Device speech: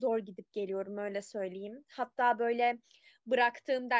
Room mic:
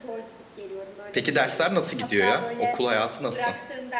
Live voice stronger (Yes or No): Yes